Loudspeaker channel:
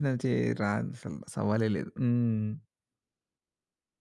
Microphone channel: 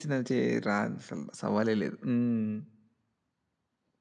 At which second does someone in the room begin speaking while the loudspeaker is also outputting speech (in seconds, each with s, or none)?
none